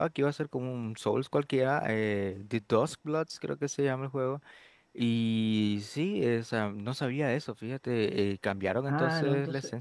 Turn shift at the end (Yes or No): Yes